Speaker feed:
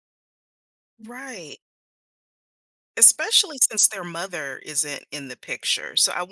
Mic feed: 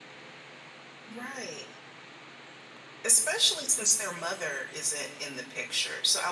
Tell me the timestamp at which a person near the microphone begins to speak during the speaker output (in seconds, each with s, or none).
none